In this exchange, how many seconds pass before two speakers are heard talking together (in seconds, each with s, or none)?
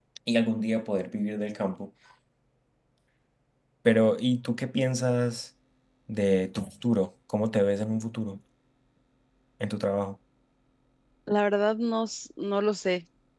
none